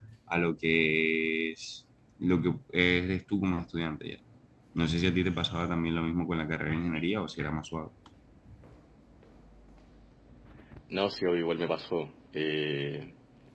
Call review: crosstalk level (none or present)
none